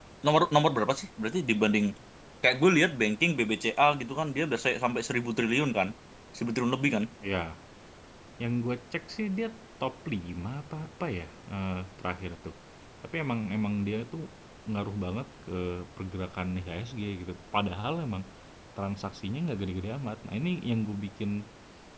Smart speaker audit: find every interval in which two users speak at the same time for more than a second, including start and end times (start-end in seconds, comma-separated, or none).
none